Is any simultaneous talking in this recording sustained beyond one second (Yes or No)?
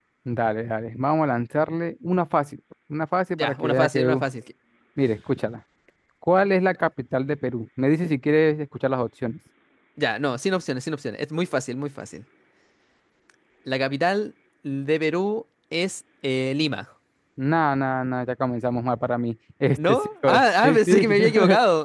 Yes